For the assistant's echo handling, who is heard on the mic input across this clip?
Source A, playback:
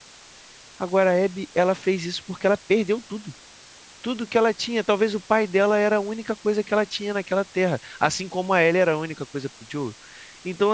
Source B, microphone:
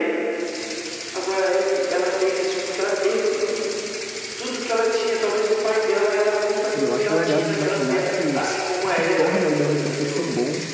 both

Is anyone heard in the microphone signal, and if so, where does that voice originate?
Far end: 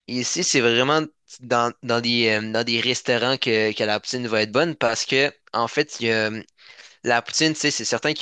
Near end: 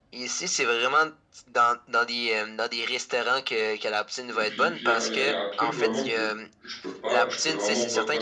both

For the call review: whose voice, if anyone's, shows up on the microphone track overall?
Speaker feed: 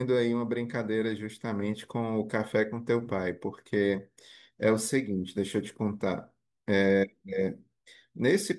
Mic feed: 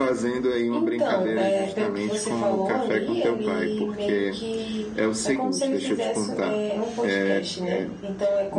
both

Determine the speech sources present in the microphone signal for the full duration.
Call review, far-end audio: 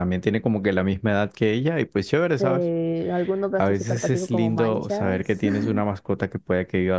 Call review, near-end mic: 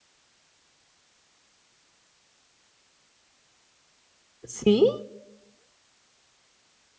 user only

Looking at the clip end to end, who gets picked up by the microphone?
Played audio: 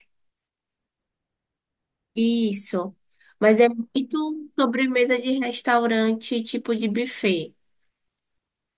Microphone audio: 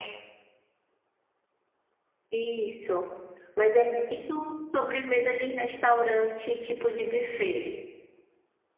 echo only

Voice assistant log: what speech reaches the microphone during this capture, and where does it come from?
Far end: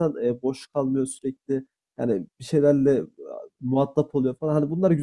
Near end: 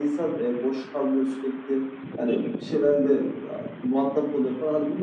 echo only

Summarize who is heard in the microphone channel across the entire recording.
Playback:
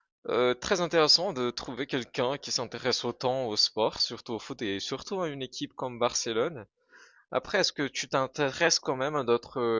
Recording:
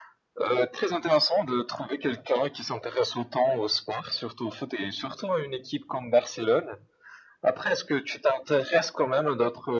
echo only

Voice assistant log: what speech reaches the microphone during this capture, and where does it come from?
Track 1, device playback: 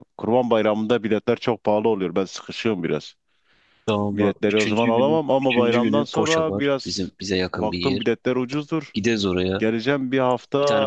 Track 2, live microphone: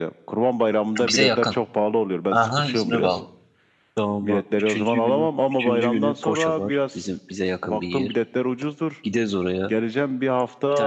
both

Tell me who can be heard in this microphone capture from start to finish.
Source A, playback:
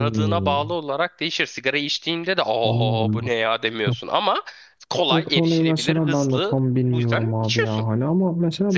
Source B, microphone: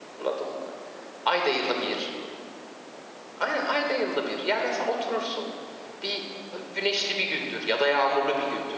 user only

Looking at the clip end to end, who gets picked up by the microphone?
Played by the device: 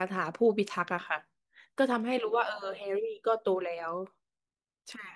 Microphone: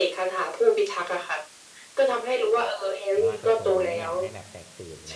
both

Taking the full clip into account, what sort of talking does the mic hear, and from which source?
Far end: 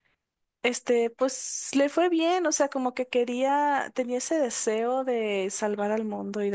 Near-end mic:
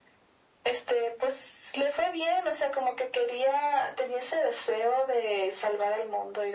echo only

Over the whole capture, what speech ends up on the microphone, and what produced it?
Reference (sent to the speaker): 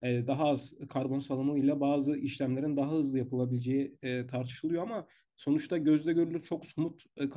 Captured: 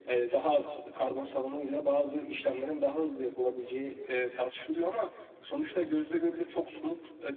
echo only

